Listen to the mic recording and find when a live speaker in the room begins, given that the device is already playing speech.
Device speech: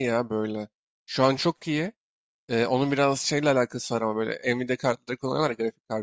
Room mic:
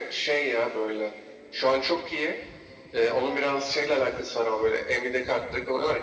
none

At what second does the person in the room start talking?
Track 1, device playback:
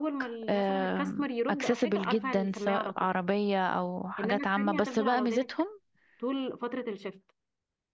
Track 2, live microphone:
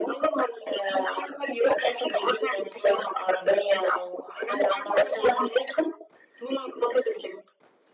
none

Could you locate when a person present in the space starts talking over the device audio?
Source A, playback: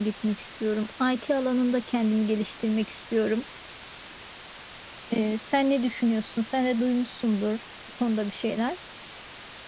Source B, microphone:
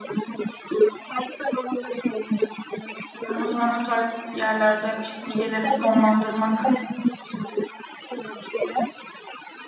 3.3 s

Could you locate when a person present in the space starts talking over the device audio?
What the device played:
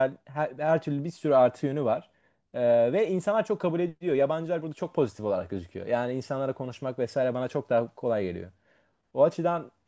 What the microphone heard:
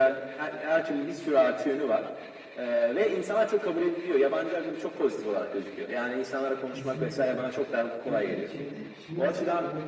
6.6 s

